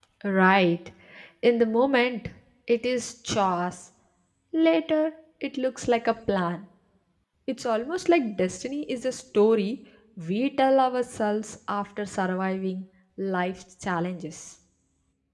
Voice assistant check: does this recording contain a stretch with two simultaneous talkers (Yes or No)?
No